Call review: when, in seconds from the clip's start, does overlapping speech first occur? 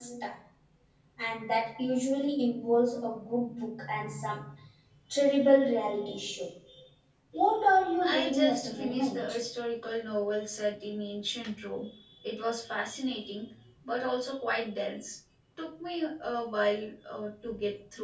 8 s

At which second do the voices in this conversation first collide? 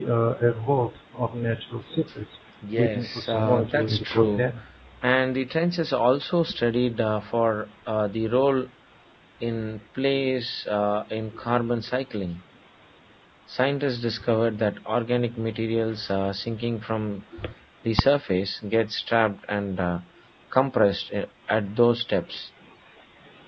3 s

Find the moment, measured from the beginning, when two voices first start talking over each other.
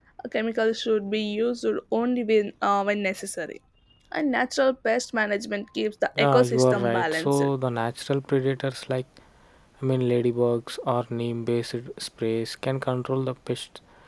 6 s

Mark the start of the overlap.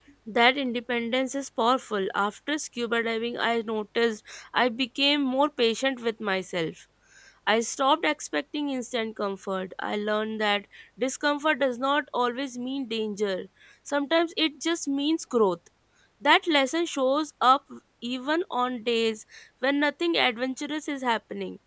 none

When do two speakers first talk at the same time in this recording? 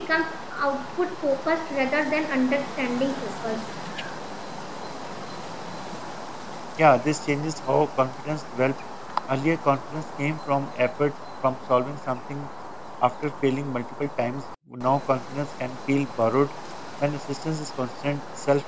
none

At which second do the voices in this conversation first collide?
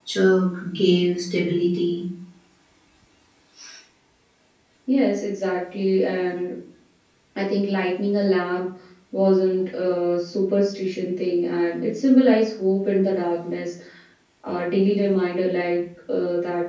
none

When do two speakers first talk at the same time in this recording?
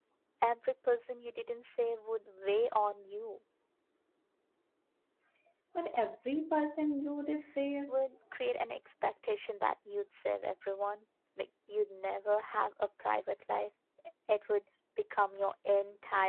none

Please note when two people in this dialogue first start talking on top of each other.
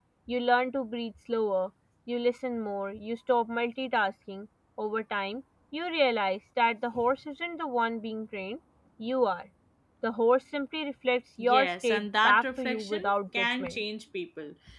11 s

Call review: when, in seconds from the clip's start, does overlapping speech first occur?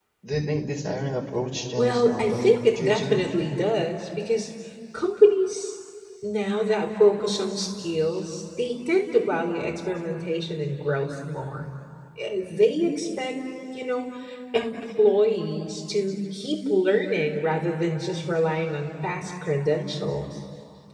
2 s

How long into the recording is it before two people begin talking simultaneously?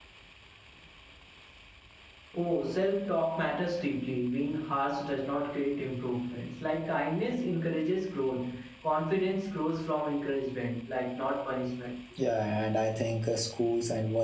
none

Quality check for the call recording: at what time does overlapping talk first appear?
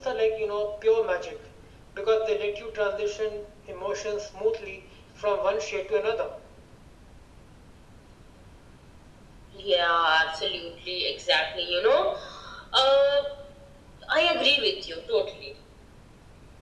none

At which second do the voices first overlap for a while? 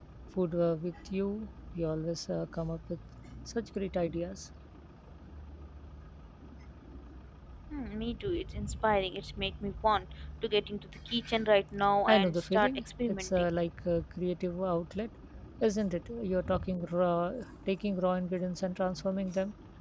12 s

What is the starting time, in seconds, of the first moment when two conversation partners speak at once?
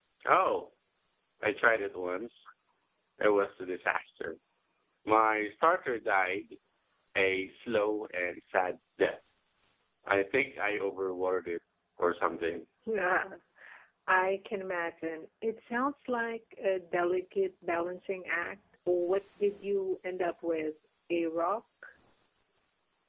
none

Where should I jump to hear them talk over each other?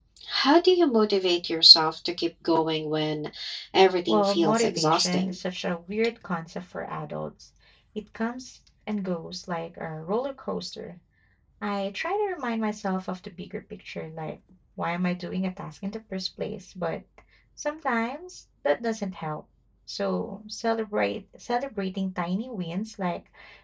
4 s

